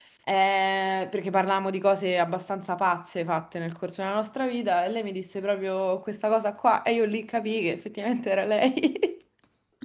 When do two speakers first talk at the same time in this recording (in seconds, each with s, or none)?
none